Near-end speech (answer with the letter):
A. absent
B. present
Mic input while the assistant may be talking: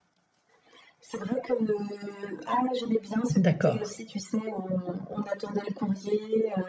B